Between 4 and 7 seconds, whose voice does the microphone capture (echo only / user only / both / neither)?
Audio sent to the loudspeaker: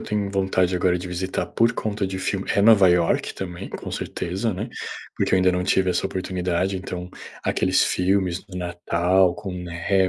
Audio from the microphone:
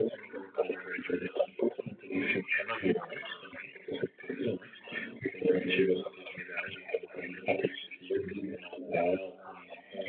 echo only